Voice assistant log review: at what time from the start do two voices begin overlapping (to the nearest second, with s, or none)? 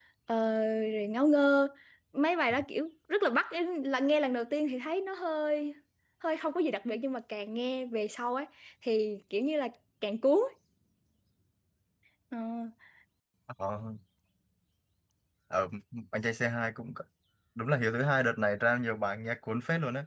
none